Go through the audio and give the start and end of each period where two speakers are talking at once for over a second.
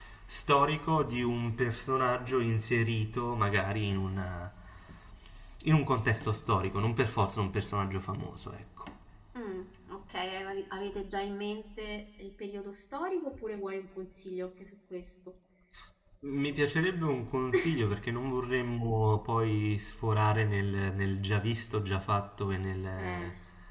none

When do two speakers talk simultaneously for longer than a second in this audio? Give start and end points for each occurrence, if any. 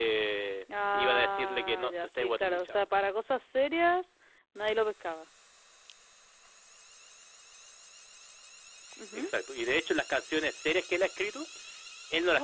0.9-2.8

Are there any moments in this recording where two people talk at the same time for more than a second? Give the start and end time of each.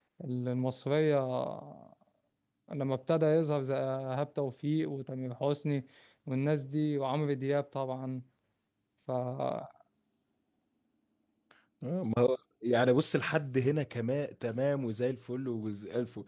none

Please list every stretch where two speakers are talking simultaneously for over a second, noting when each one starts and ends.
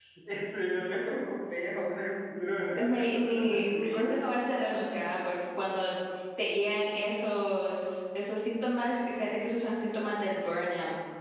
2.8-4.1

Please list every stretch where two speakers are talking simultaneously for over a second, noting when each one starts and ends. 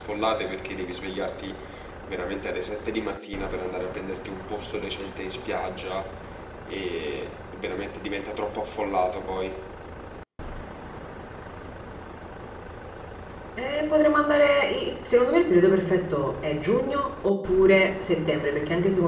none

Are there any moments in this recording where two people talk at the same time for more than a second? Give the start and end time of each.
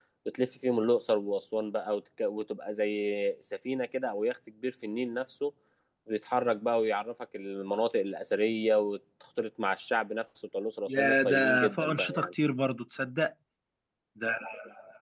10.9-12.3

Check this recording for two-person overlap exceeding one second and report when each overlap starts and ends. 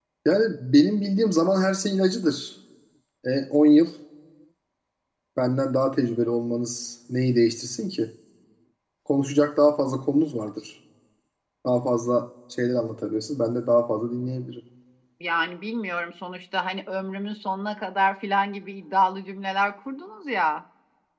none

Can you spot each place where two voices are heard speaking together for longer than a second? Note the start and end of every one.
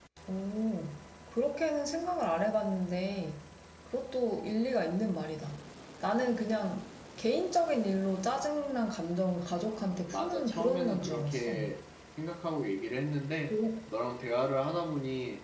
9.7-11.6

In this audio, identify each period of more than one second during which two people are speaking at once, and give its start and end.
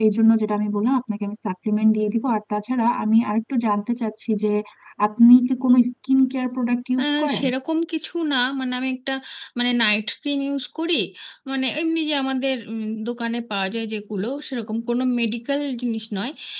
none

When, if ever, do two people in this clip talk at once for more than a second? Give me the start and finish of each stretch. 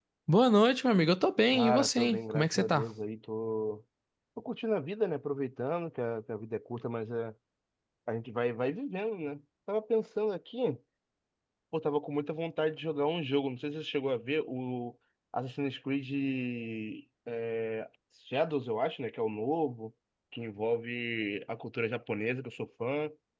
1.5-2.9

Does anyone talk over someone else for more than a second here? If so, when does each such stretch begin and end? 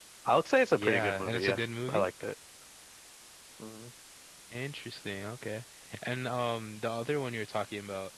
0.7-2.0

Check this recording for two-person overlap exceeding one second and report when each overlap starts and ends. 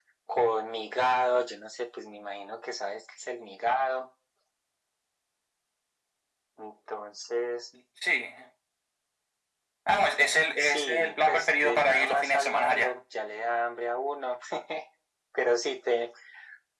10.6-12.9

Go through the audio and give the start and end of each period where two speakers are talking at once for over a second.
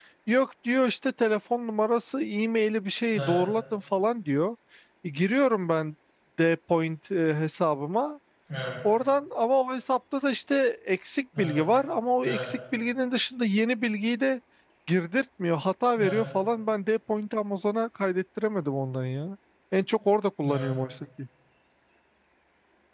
none

